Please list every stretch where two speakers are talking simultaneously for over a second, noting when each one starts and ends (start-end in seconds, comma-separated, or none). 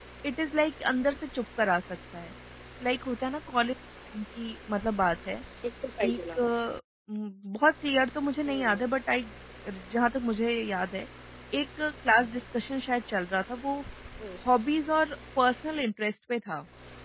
none